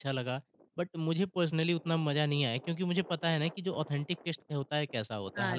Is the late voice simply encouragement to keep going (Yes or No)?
No